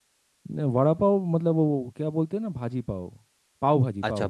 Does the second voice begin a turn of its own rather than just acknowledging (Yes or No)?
Yes